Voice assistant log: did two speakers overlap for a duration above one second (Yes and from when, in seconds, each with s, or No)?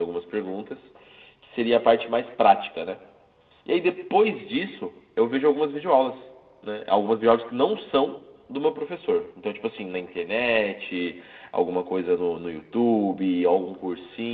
No